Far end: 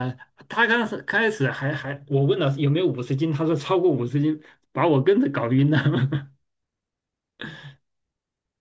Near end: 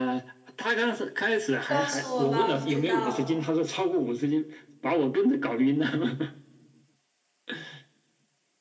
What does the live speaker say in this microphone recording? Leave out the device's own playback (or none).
你告诉我吧，我不知道了。